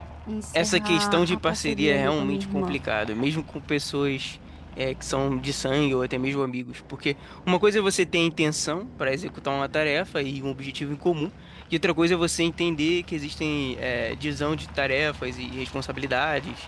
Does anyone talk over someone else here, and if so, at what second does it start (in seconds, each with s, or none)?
0.5 s